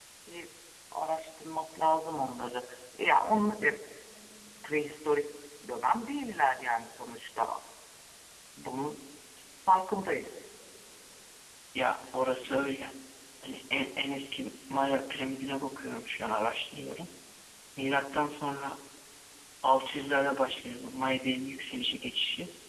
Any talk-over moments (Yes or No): No